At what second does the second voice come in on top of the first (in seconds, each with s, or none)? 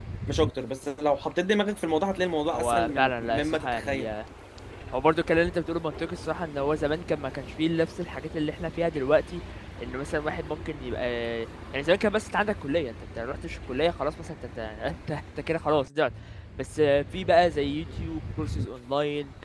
2.5 s